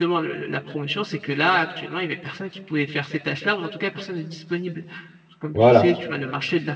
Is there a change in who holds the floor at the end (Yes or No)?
No